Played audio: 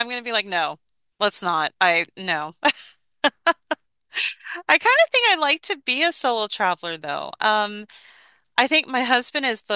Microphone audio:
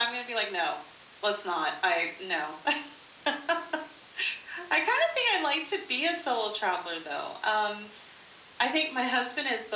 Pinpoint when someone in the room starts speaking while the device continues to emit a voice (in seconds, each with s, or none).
none